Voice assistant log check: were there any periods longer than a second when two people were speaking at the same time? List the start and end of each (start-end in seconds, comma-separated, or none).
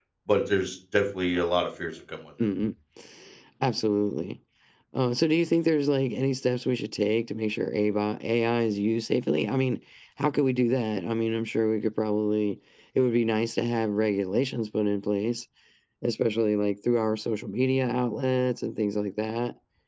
none